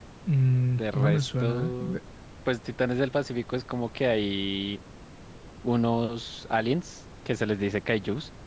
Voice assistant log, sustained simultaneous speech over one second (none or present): present